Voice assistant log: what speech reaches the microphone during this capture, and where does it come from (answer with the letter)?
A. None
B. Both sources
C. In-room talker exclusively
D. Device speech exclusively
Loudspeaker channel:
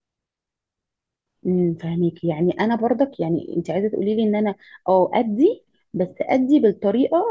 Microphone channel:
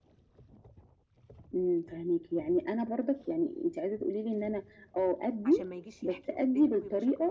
B